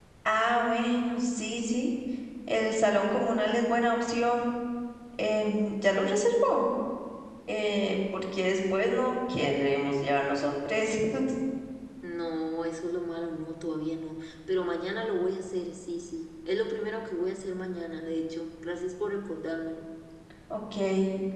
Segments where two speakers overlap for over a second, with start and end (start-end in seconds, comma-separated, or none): none